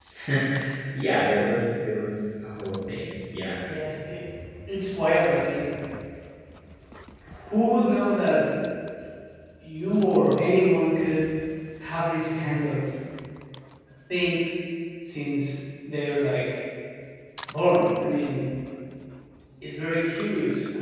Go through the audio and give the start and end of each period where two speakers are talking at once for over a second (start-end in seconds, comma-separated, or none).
none